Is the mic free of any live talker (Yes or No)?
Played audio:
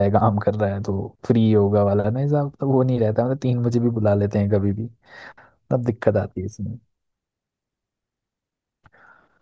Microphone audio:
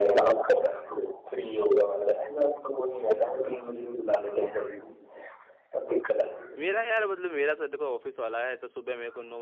No